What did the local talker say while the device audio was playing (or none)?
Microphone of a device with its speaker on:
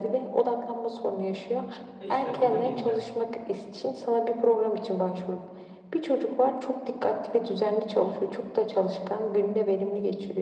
Ha işte ona geleceğim.